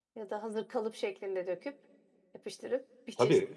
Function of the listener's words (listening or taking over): taking over